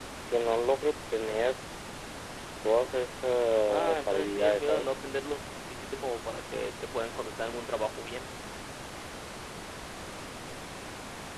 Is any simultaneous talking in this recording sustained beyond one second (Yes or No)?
Yes